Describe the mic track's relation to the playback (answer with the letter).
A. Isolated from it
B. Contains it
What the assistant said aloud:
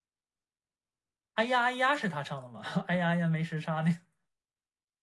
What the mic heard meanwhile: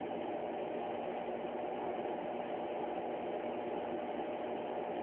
A